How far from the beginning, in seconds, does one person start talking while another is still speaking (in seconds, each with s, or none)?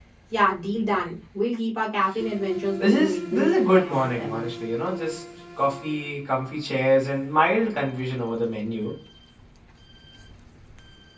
2.8 s